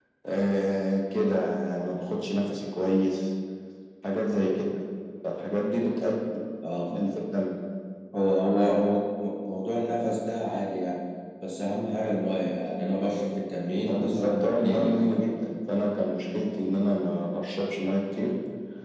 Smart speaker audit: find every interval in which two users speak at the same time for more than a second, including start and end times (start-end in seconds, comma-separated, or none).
13.8-15.0